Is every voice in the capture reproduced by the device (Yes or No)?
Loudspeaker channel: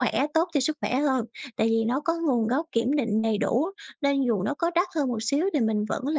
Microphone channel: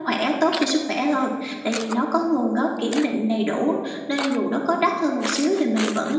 Yes